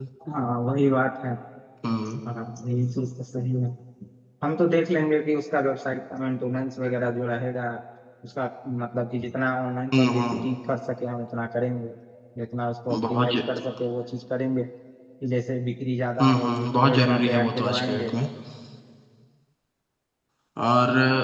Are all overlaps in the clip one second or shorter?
No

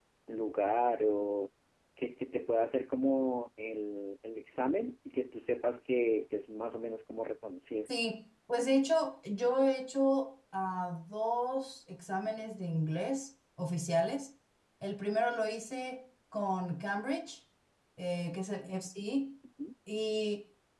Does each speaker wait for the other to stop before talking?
Yes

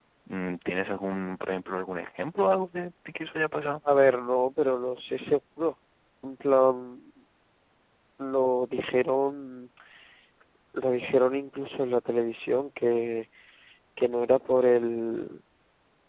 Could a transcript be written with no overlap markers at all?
Yes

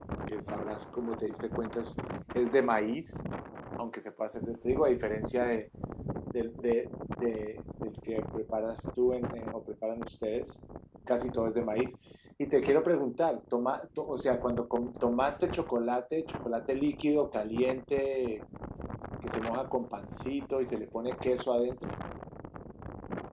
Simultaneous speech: No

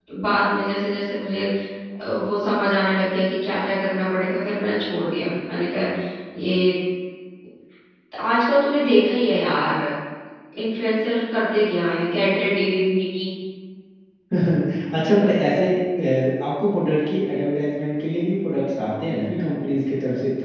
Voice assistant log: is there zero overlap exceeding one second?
Yes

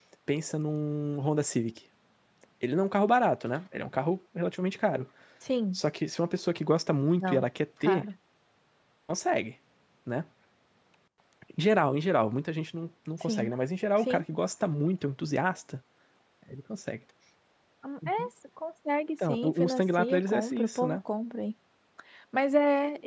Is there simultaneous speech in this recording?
Yes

